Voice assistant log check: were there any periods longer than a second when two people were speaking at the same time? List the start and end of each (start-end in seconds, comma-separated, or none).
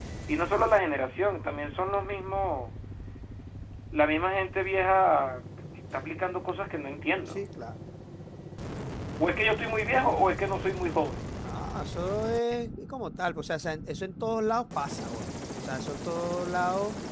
none